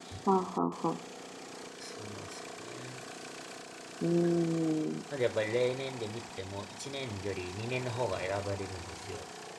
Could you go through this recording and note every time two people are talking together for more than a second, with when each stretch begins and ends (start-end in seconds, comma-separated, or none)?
none